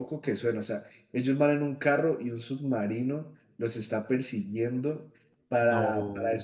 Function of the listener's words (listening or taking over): listening